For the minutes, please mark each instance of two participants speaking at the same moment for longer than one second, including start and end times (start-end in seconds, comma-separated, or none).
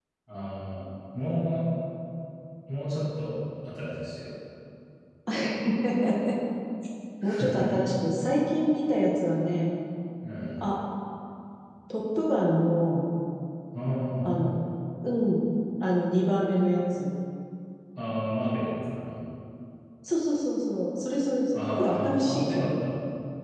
21.5-22.7